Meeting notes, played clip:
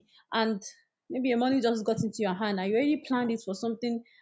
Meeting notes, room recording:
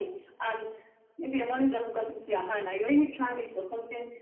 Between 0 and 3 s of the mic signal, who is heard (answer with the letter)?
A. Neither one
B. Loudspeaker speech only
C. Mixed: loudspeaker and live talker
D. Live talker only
B